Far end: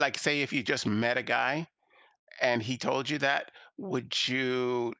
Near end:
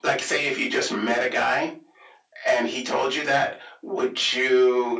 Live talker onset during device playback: none

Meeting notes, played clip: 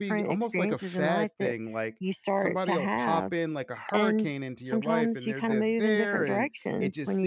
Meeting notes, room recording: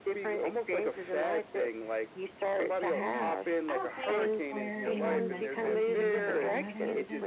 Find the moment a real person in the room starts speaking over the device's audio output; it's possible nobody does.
2.9 s

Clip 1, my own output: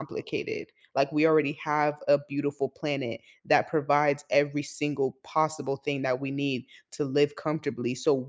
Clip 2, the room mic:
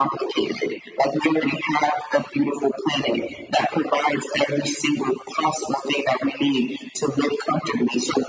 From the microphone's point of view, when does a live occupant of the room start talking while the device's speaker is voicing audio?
none

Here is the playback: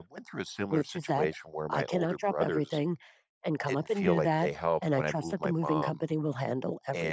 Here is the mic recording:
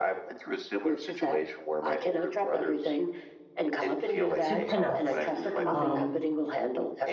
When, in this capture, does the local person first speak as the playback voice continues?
4.4 s

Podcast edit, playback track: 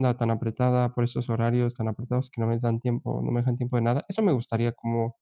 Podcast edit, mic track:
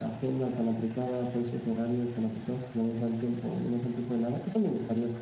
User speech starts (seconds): none

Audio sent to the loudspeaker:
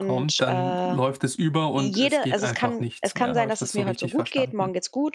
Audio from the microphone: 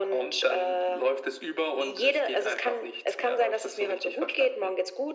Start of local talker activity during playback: none

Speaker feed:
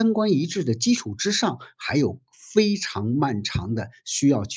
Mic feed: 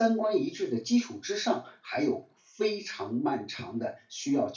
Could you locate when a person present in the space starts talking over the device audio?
none

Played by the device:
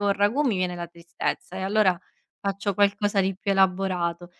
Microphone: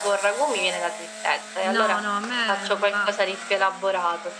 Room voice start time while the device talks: 1.6 s

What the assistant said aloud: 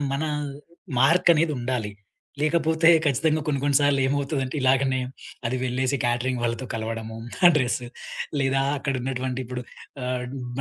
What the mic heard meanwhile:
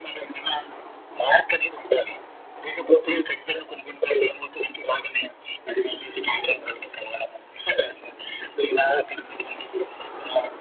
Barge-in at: none

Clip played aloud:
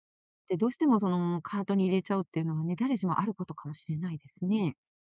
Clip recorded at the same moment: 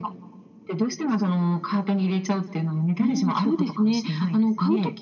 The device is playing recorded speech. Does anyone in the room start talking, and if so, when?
3.0 s

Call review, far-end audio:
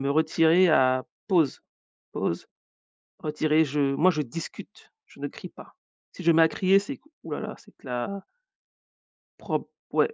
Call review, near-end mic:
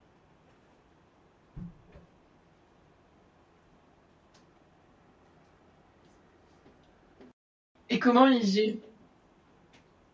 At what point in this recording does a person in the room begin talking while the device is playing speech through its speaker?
7.9 s

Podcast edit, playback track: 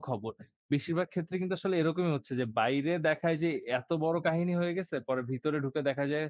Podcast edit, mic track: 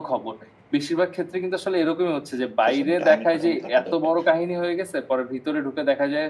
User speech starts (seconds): 2.6 s

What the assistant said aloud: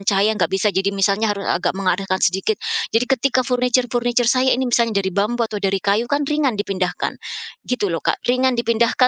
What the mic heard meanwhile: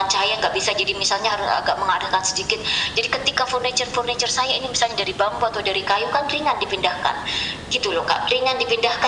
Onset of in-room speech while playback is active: none

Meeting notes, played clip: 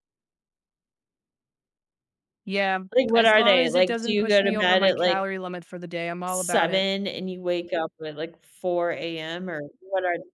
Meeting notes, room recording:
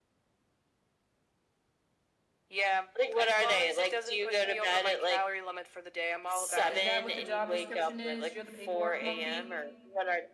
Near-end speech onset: 6.7 s

